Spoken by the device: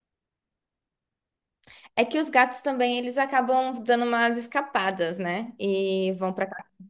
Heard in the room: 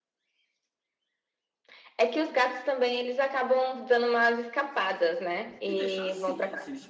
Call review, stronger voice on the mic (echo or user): echo